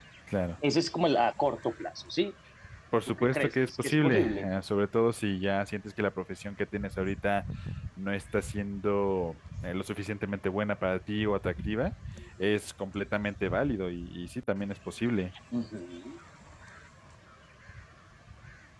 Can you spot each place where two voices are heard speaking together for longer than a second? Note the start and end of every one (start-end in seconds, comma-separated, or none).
3.1-4.5